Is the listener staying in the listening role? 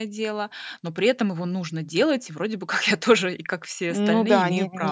No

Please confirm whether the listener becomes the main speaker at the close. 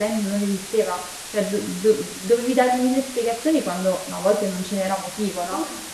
No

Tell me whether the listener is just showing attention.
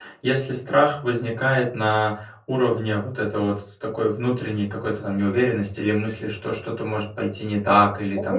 No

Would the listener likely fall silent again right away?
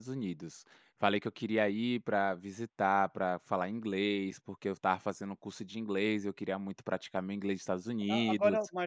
No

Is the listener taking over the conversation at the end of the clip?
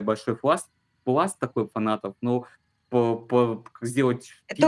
Yes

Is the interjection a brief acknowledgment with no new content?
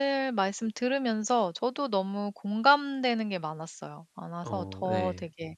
Yes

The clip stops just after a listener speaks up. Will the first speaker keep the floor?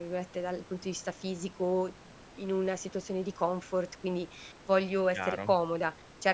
Yes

